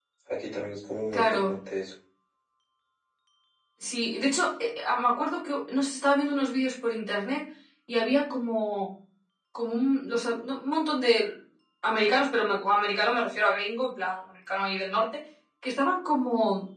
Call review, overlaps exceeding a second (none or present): none